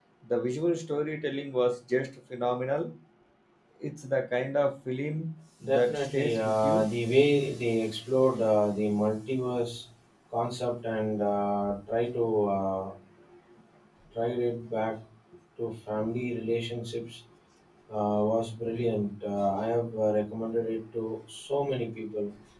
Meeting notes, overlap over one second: present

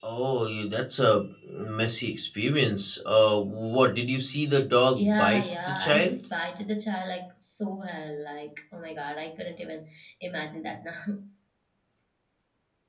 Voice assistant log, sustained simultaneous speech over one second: present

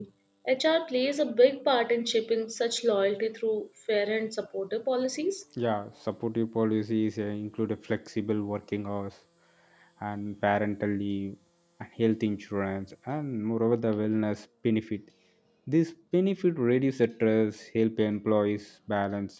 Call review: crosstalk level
none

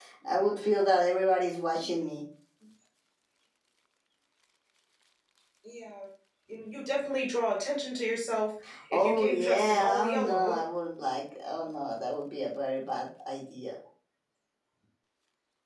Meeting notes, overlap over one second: present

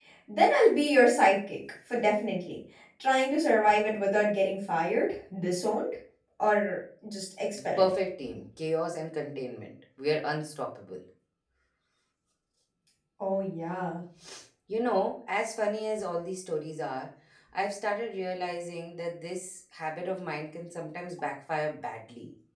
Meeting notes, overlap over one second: none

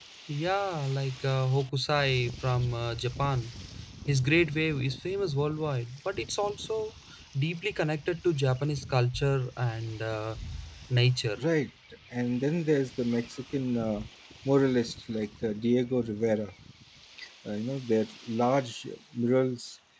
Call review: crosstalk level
none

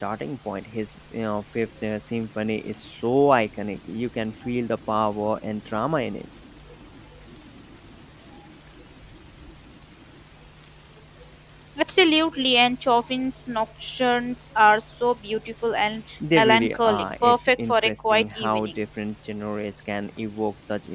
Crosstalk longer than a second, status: present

